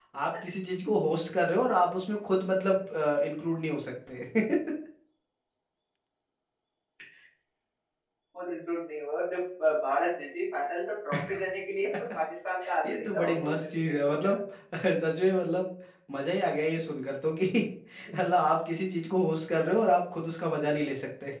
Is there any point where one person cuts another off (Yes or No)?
Yes